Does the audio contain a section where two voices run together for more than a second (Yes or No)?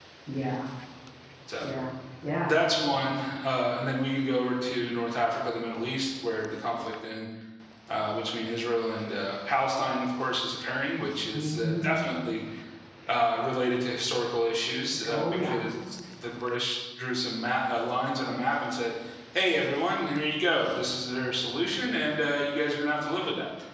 No